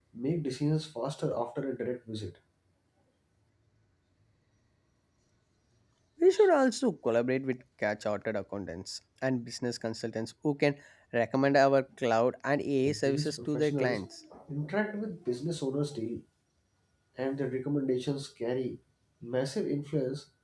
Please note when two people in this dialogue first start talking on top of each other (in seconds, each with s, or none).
12.8 s